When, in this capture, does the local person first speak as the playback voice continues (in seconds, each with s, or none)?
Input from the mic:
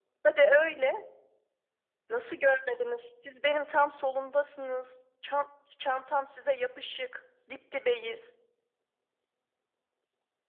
none